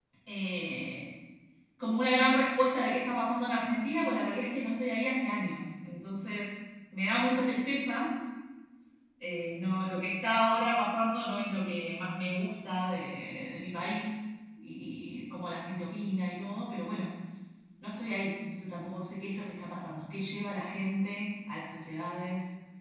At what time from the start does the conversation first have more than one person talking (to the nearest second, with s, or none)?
none